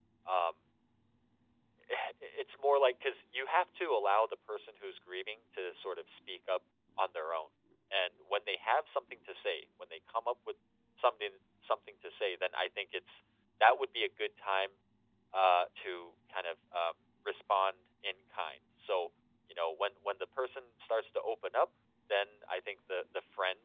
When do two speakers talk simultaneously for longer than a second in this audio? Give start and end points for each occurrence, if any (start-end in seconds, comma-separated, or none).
none